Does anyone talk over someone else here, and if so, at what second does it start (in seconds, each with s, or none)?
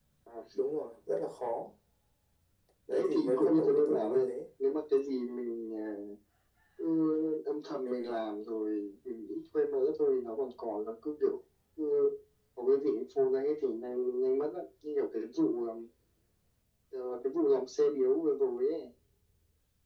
2.9 s